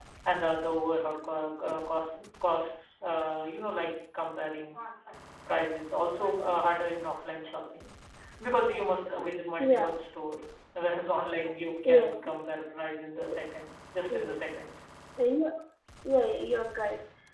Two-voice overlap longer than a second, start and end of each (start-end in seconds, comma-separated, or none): none